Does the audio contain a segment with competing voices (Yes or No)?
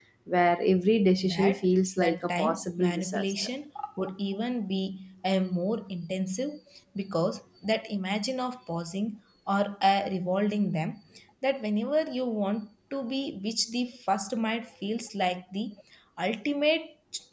Yes